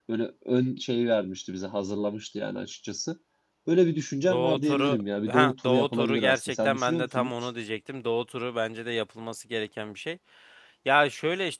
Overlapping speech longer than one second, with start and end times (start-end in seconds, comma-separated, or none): 4.3-7.3